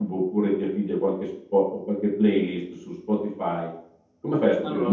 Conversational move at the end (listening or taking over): listening